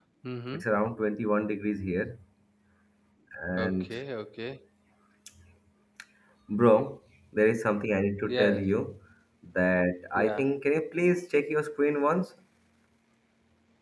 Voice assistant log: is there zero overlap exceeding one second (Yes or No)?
Yes